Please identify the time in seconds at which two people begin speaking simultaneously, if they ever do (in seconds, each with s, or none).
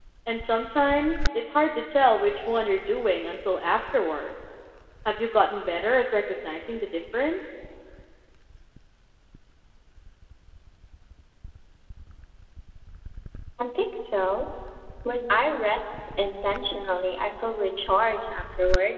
none